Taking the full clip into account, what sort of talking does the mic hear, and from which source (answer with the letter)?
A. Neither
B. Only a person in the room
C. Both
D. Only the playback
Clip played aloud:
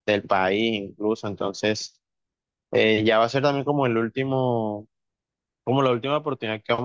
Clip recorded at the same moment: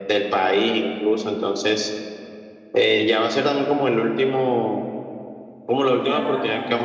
C